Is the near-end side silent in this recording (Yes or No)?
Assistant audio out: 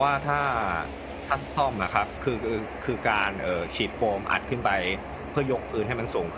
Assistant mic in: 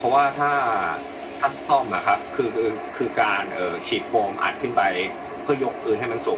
Yes